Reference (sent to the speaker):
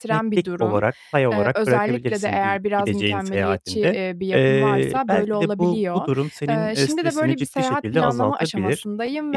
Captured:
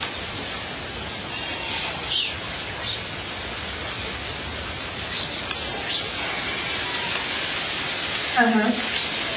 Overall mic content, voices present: user only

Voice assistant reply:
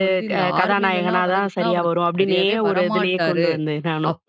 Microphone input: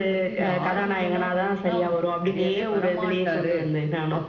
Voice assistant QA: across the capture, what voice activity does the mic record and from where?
echo only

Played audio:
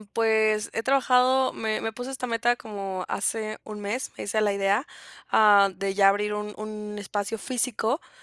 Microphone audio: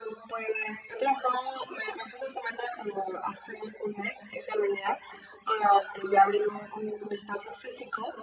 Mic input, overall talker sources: echo only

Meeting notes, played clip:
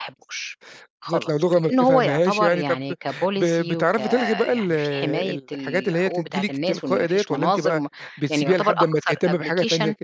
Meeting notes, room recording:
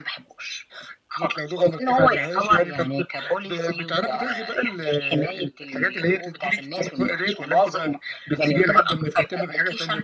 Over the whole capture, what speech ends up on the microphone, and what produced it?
echo only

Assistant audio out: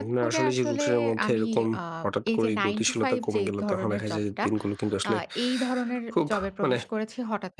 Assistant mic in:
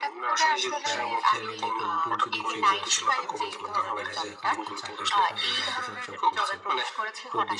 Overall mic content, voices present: both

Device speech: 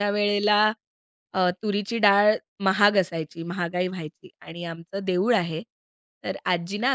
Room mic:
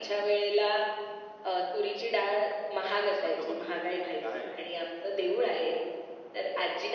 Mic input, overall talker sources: both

